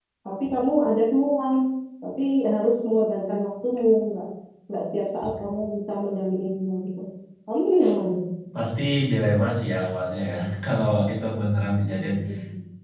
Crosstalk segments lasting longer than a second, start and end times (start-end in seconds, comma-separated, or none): none